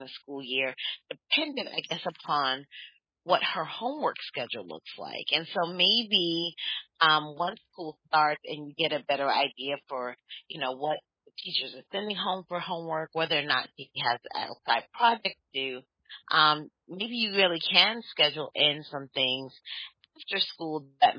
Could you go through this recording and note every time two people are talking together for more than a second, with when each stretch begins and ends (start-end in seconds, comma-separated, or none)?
none